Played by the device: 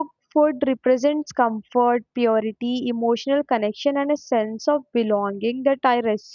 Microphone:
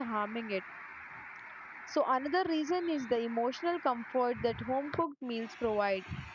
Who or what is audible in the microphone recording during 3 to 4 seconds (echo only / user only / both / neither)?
user only